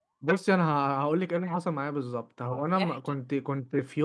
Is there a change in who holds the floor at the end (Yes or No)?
No